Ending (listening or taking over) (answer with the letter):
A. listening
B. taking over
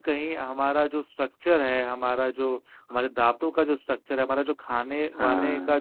A